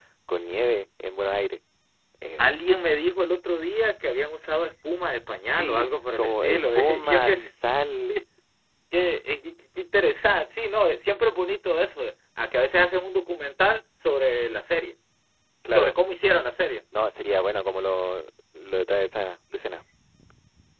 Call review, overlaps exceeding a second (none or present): present